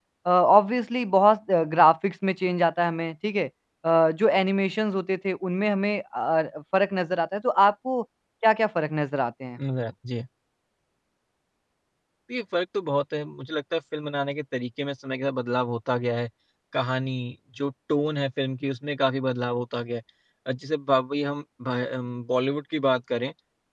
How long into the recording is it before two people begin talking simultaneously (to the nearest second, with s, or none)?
none